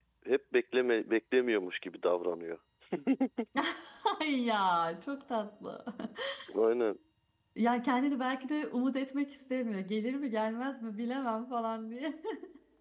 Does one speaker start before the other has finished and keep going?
No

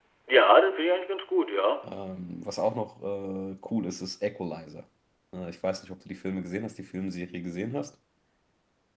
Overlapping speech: No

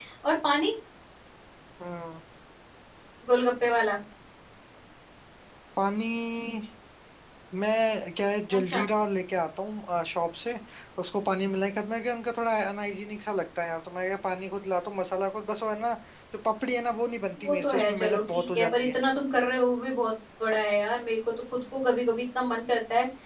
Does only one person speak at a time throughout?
No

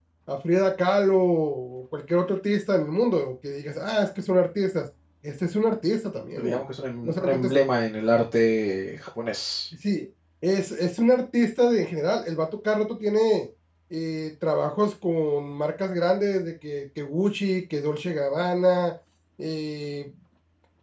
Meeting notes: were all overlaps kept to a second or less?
Yes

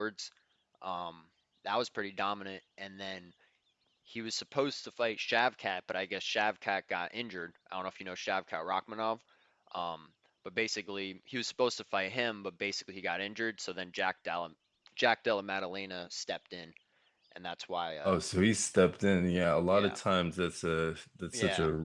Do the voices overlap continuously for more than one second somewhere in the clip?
No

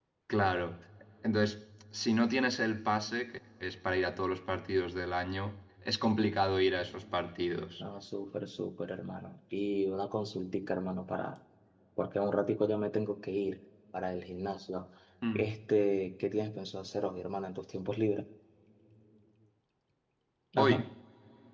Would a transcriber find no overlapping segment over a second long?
Yes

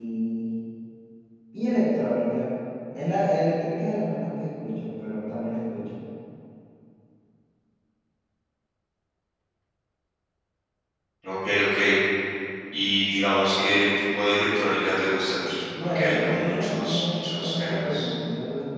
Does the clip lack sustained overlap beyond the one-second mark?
No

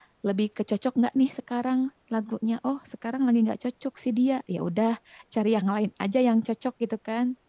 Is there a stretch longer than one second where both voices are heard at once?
No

